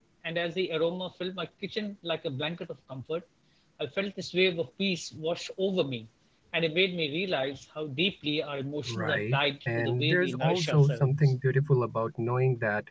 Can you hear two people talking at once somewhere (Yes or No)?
Yes